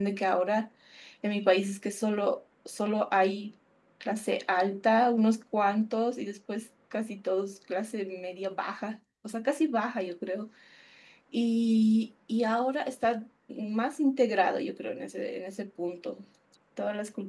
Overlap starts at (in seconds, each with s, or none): none